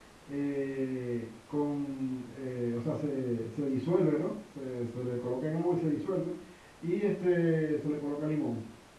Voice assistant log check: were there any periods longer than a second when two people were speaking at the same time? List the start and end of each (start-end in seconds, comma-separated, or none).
none